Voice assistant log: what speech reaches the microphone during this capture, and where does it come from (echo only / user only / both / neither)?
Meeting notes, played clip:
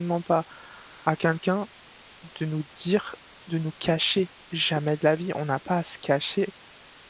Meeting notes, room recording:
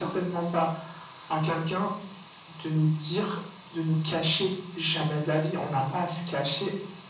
echo only